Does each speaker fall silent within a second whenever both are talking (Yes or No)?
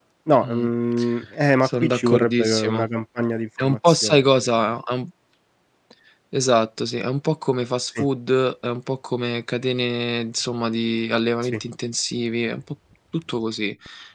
No